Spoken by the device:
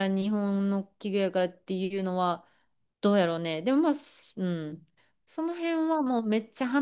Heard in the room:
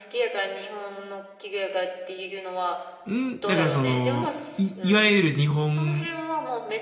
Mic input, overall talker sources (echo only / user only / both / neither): both